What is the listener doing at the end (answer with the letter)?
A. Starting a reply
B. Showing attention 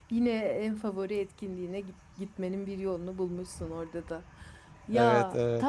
B